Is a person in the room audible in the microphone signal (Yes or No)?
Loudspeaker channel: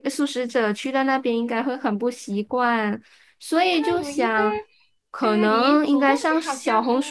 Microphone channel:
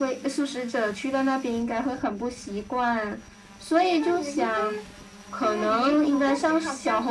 No